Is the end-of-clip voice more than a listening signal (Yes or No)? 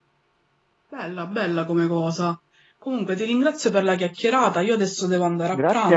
Yes